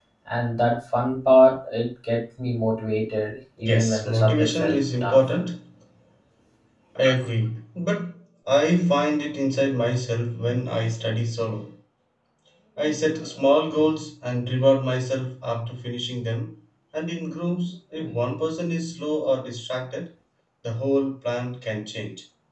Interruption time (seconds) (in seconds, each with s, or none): 3.6 s